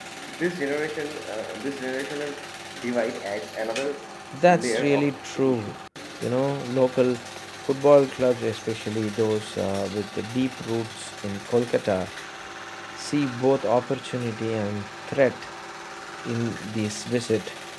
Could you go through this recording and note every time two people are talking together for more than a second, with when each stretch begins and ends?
4.5-5.7

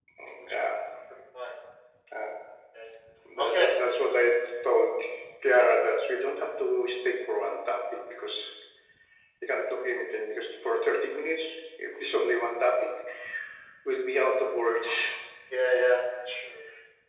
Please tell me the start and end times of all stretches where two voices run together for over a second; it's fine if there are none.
none

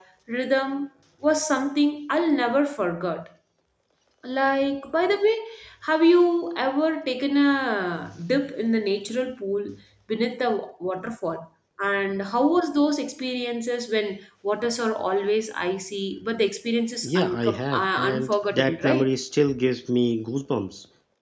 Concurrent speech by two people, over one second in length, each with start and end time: 17.0-19.1

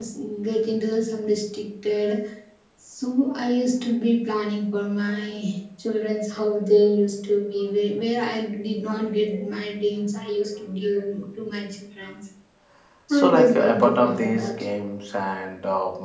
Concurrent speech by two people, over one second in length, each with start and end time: 13.1-14.5

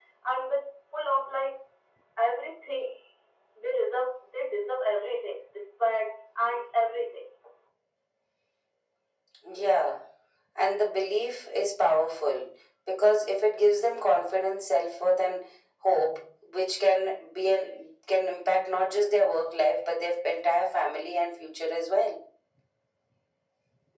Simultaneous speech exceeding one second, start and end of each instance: none

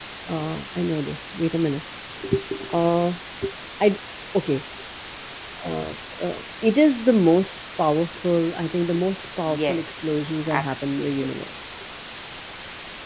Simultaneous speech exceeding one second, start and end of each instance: 9.5-11.1

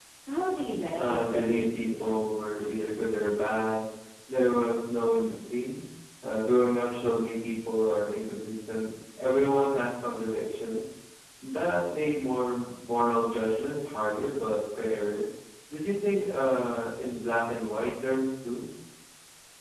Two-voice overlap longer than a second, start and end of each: 1.0-2.3

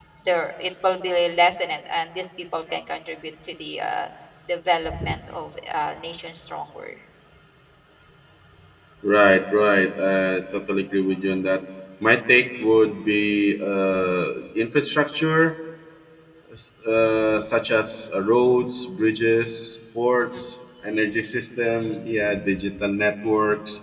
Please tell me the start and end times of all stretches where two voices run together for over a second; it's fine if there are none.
none

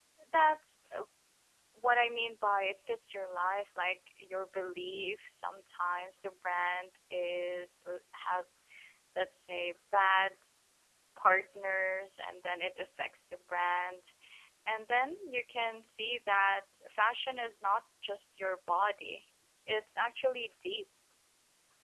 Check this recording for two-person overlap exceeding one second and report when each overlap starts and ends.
none

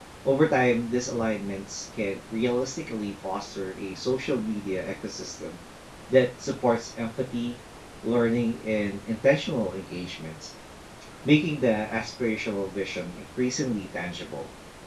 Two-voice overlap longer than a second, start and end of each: none

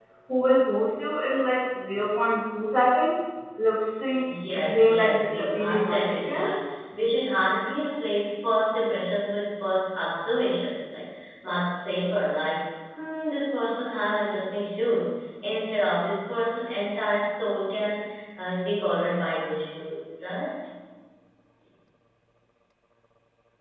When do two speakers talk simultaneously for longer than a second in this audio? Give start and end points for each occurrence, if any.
4.5-6.5

